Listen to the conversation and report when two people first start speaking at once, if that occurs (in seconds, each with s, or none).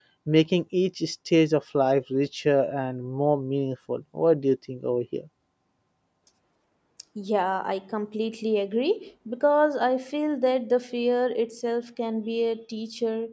none